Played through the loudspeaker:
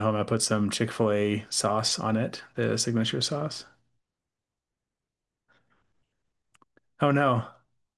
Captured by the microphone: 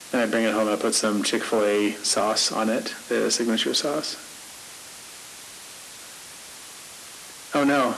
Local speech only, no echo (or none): none